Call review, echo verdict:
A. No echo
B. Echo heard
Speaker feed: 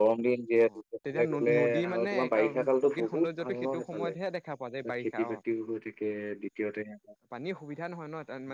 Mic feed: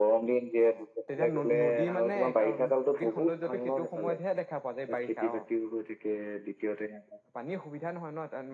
B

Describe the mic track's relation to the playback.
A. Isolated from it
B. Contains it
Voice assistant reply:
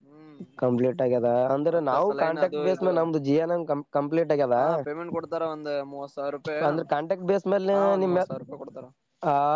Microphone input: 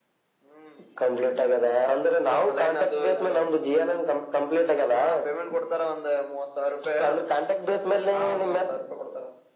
B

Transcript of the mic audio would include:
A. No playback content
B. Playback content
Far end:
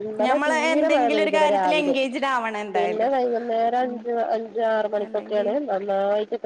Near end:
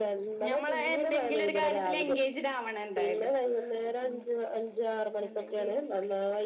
B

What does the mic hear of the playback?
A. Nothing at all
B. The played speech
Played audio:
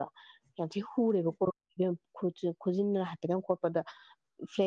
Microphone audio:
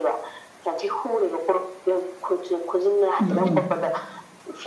B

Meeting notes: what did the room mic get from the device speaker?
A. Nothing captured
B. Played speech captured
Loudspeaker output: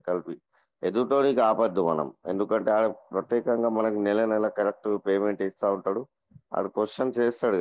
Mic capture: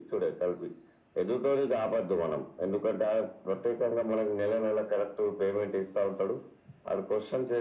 B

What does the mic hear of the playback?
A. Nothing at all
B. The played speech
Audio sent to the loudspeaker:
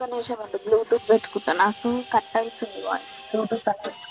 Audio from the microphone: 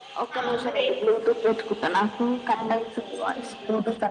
B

